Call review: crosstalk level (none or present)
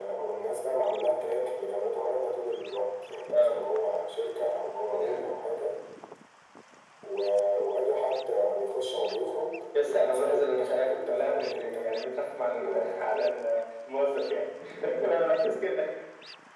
present